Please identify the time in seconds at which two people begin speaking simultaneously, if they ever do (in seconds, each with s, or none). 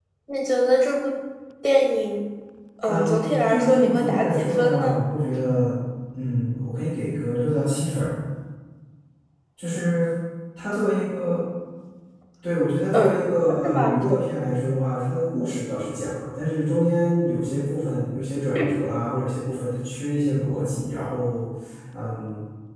2.9 s